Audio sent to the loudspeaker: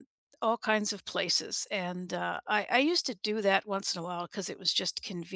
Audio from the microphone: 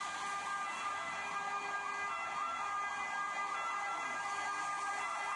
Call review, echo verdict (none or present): none